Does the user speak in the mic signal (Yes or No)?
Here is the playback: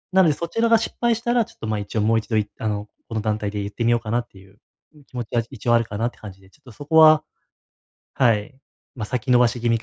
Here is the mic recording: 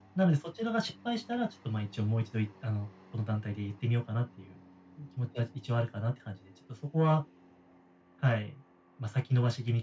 No